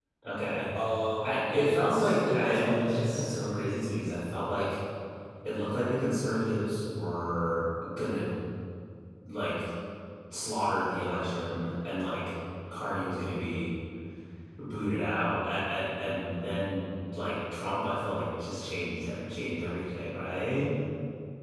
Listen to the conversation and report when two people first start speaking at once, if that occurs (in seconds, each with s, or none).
1.2 s